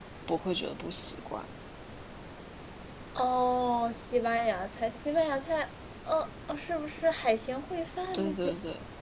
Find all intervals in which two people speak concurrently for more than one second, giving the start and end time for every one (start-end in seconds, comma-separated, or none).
none